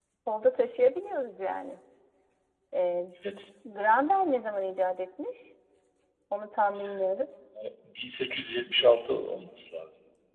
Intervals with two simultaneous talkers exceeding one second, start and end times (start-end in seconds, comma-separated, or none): none